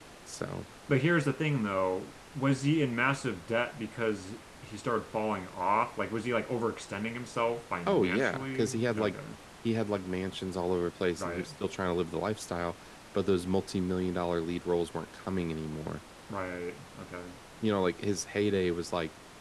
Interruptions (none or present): present